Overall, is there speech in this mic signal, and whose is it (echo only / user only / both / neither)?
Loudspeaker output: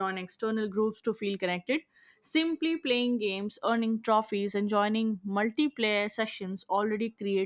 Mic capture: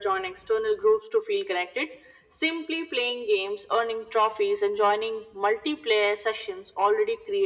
echo only